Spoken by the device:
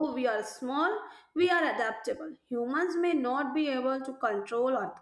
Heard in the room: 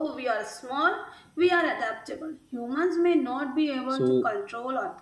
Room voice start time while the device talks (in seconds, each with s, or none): 3.9 s